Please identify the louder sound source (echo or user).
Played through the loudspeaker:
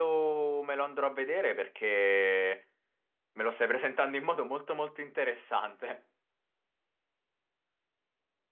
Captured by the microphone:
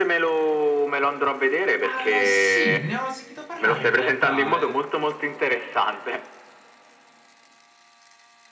echo